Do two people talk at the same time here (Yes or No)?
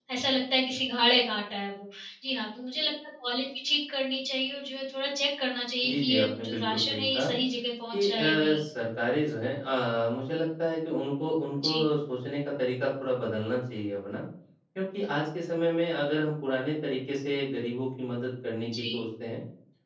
Yes